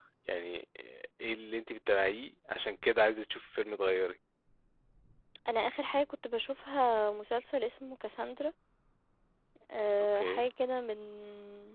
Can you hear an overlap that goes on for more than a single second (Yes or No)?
No